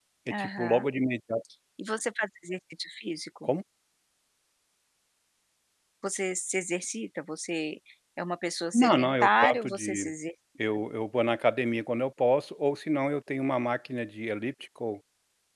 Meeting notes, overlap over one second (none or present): present